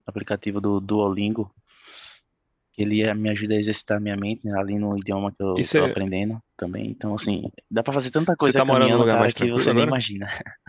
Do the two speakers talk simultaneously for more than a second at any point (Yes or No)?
Yes